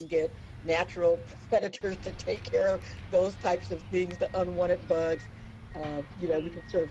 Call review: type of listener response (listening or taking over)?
listening